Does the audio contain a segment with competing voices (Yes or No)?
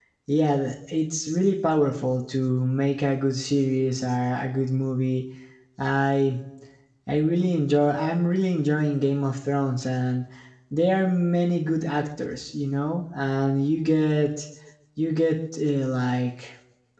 No